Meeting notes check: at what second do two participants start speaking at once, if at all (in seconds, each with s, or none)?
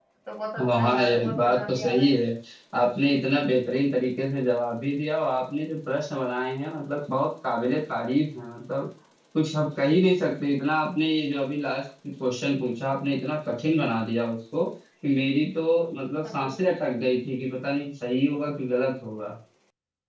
0.6 s